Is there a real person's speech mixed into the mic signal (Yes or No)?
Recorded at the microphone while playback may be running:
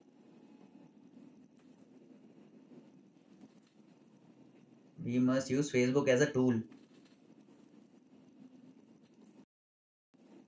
Yes